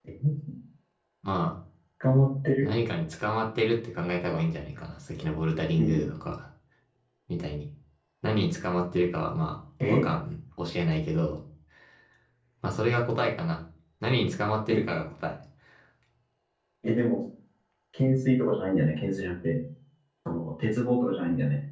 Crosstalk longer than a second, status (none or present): none